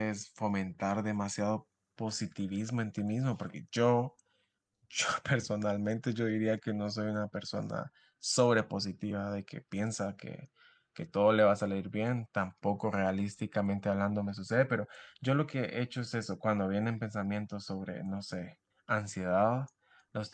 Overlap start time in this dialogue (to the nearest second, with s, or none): none